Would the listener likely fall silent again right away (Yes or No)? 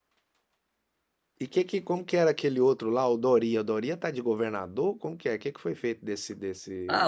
No